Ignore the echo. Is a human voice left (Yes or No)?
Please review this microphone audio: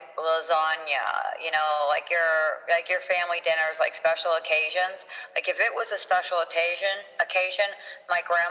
No